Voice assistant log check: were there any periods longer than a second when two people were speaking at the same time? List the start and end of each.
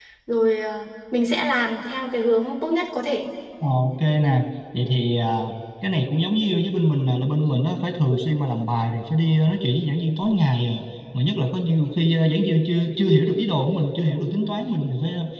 none

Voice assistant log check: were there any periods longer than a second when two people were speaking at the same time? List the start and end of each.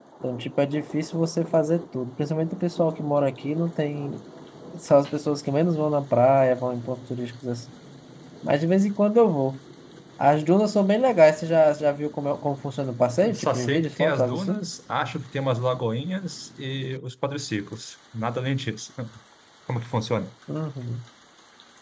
13.3-14.6

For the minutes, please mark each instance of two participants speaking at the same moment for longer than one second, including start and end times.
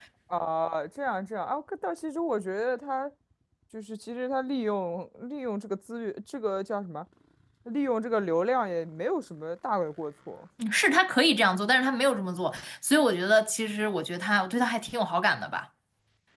none

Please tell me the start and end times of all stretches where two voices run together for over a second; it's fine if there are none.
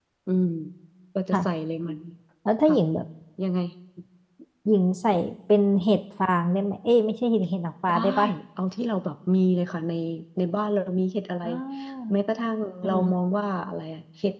none

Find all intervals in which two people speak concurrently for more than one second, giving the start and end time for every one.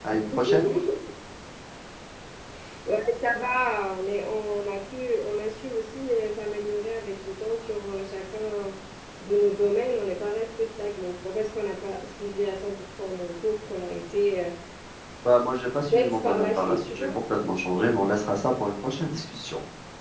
15.8-17.1

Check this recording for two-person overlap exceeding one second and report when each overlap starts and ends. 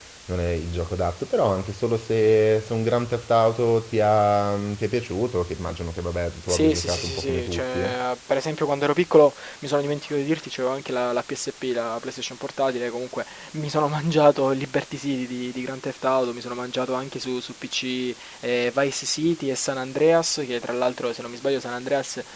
6.5-7.8

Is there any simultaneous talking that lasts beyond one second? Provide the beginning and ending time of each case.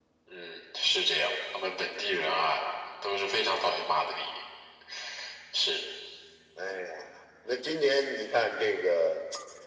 none

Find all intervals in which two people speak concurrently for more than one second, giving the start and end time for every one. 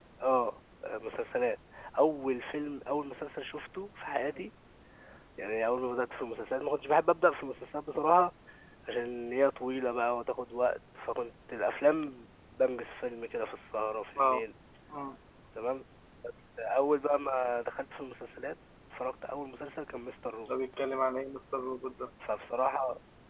none

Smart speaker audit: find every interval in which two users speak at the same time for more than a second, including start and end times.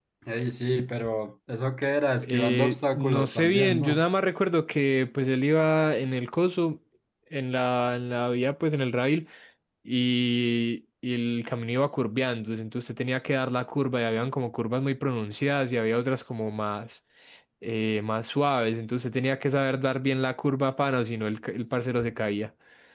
2.3-4.0

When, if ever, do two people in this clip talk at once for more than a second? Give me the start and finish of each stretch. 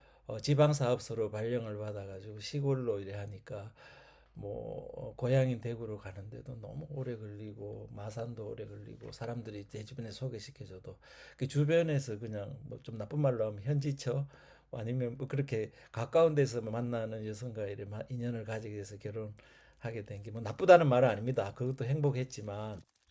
none

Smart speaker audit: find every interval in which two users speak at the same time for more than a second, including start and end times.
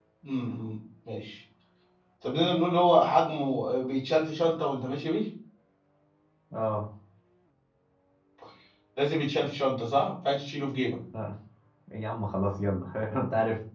none

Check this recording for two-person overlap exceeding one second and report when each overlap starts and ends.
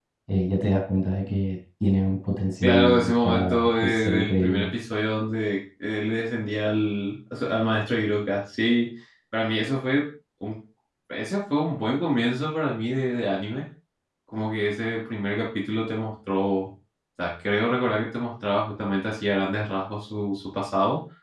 2.6-4.7

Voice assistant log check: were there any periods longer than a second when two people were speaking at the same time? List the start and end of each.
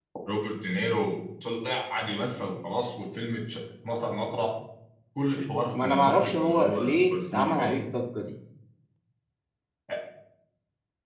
5.8-7.9

